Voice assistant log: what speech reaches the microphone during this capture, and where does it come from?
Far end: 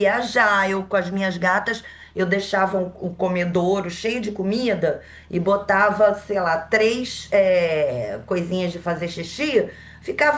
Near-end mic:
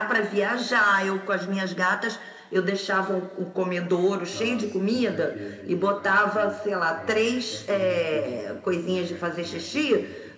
both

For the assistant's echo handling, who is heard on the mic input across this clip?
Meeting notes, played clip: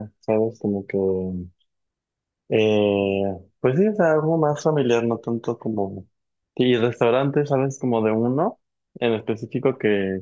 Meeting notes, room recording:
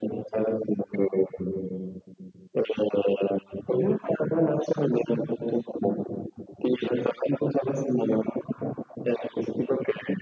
echo only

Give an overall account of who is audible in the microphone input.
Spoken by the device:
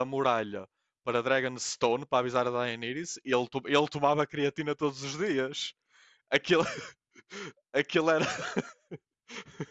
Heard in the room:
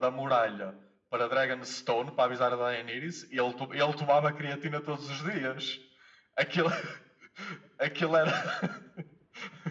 echo only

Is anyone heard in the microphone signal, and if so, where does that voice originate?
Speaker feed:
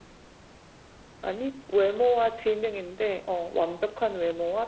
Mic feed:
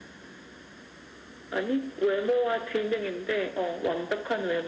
echo only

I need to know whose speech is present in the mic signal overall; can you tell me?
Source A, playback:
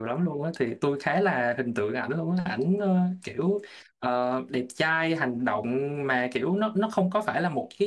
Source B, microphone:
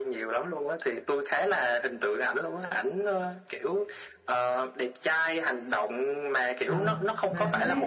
both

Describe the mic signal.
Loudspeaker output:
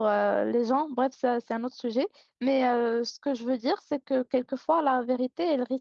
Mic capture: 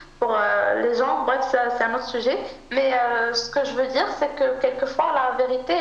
echo only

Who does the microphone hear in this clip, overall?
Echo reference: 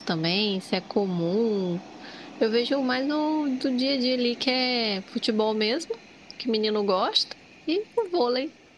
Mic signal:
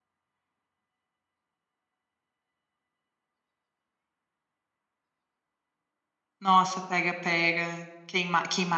user only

